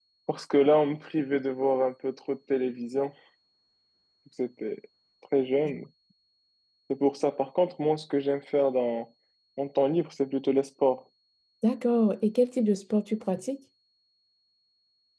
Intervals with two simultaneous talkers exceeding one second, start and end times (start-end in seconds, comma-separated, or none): none